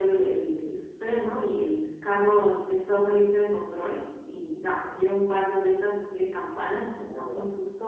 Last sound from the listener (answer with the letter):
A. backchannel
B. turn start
A